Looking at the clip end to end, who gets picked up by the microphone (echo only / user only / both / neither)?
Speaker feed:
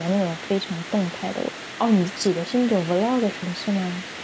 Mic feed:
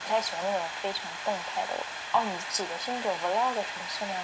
echo only